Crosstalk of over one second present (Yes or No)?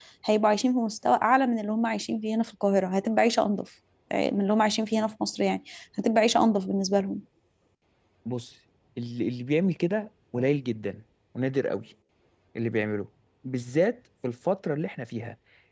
No